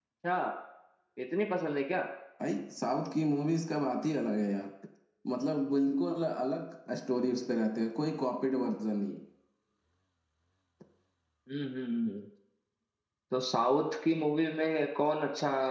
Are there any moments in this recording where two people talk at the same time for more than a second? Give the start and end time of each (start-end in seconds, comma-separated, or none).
none